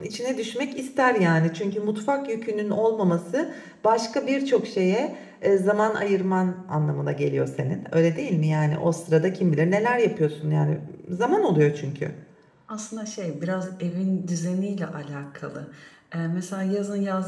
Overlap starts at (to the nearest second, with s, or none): none